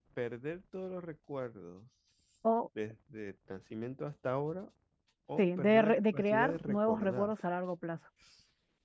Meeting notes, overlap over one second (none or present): present